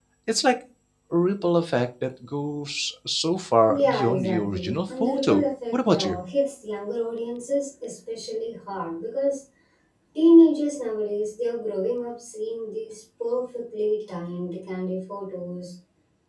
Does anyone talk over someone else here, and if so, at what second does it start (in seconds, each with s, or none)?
3.7 s